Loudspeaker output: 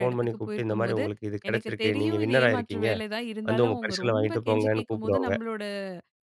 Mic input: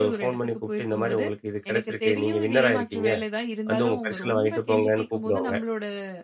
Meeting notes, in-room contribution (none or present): none